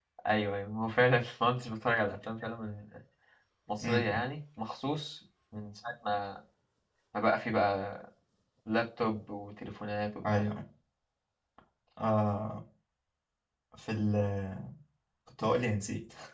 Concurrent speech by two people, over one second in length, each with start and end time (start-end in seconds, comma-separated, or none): none